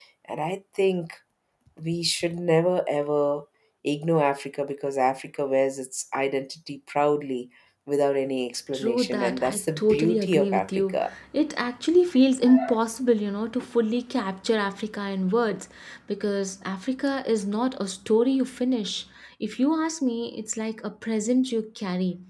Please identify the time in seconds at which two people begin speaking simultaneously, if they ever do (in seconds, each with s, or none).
8.7 s